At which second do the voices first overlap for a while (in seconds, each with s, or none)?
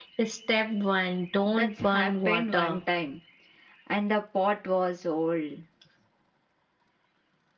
1.4 s